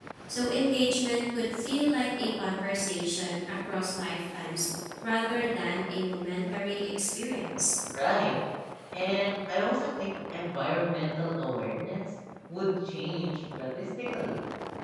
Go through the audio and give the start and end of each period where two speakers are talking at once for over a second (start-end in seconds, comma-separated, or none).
none